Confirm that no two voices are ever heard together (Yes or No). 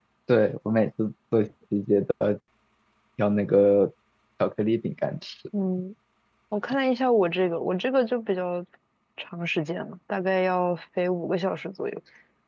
Yes